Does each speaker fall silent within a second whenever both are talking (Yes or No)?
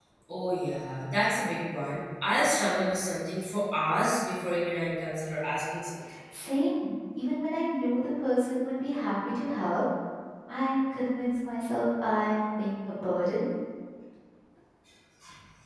Yes